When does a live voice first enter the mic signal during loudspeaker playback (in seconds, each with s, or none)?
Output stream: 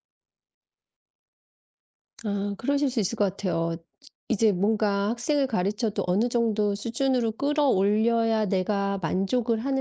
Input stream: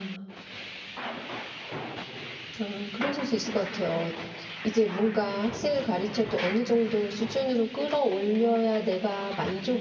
none